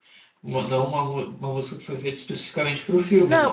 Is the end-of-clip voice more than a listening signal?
Yes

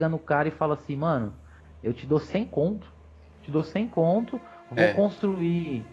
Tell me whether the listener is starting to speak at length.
No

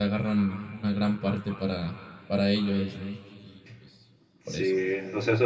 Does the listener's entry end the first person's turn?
Yes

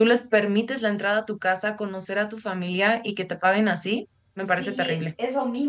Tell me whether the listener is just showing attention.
No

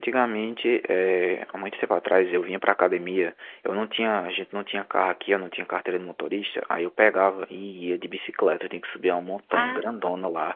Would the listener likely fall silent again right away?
Yes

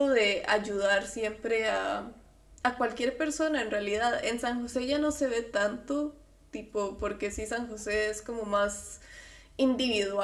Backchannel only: Yes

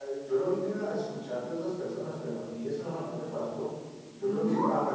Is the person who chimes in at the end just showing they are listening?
Yes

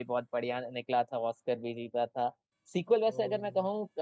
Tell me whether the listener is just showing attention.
Yes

